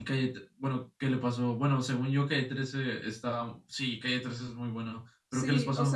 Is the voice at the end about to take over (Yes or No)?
Yes